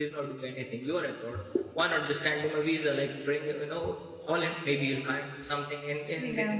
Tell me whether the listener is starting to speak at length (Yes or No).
No